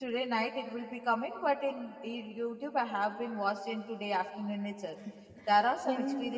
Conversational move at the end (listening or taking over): listening